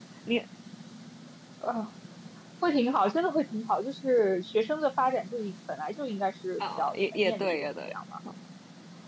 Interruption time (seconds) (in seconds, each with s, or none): 6.6 s